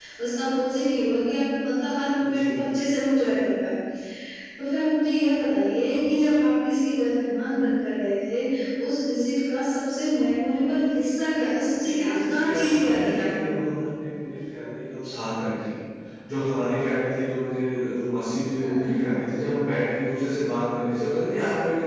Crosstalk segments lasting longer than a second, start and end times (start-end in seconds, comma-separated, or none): 11.8-13.7